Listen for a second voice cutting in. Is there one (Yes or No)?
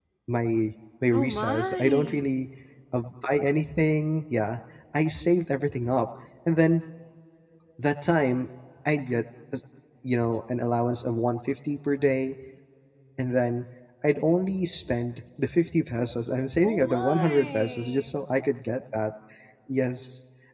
Yes